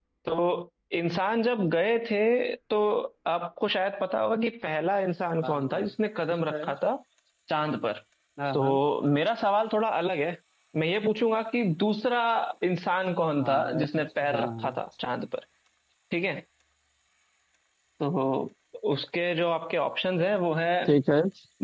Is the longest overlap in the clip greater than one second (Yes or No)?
Yes